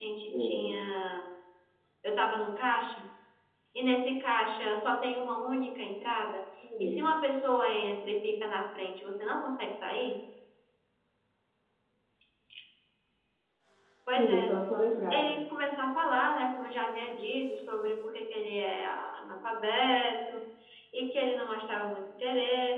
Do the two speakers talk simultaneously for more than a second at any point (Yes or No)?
No